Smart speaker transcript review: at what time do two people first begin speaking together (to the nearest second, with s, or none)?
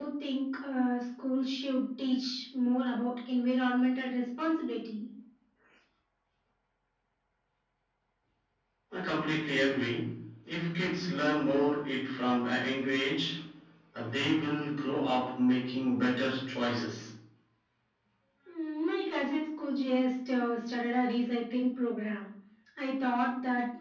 none